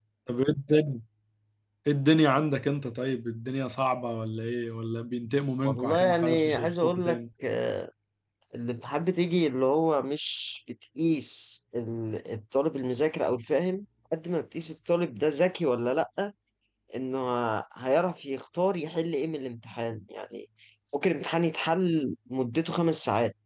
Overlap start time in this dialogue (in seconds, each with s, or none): 5.6 s